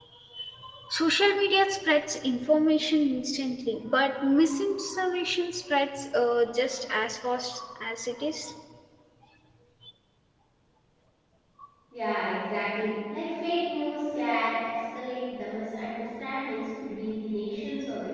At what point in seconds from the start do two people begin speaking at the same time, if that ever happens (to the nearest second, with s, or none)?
none